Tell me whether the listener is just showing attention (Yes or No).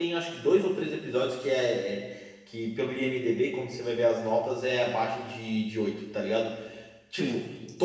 Yes